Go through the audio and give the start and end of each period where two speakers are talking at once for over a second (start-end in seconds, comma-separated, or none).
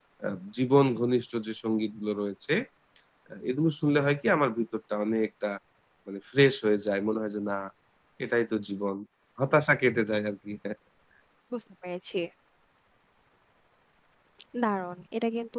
none